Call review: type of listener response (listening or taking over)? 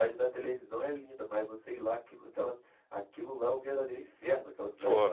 taking over